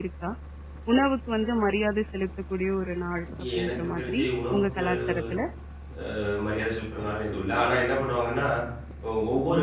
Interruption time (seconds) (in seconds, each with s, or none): 3.4 s